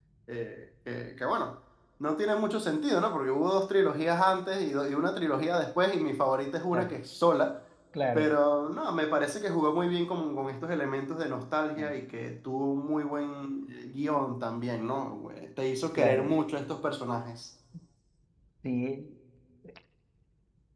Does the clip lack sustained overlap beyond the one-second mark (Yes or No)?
Yes